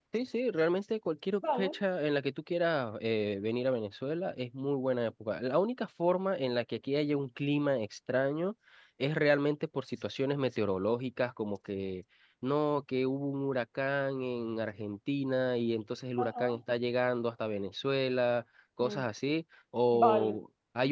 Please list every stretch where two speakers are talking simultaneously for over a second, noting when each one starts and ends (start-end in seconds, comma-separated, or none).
none